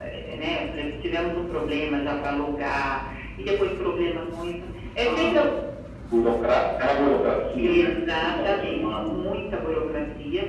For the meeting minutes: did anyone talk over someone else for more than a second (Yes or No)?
Yes